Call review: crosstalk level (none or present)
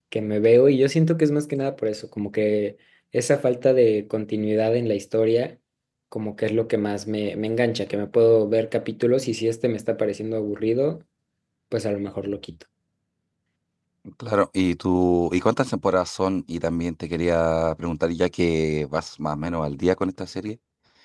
none